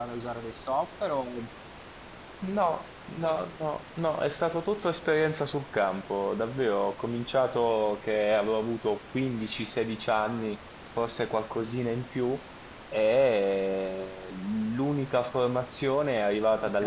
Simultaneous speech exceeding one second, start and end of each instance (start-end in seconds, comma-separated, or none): none